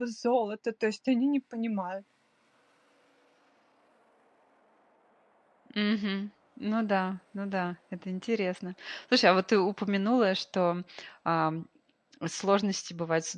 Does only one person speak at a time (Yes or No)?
Yes